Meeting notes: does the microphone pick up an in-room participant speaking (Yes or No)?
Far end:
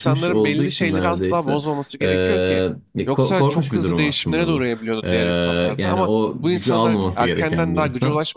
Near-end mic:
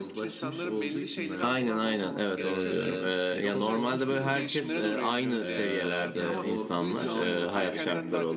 Yes